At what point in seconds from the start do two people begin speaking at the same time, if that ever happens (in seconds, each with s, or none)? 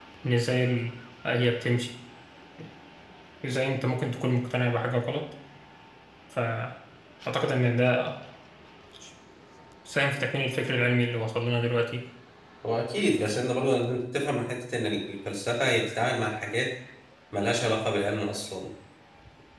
none